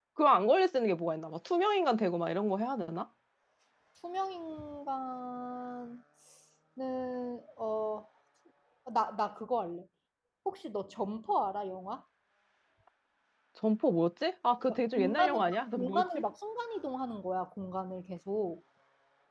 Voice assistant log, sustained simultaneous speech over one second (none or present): present